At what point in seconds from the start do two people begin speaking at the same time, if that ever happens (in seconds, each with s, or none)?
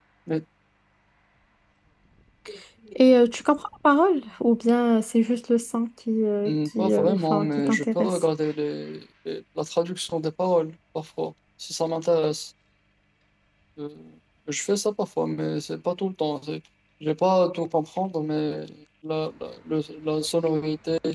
6.4 s